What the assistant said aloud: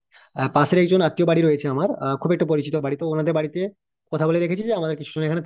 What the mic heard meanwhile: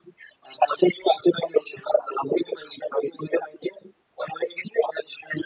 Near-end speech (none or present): none